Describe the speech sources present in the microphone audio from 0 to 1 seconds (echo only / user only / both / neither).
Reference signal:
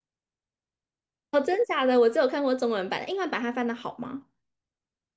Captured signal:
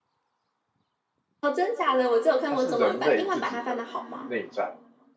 neither